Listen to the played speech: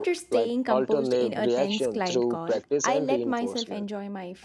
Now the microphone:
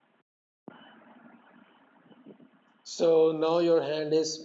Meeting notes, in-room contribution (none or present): present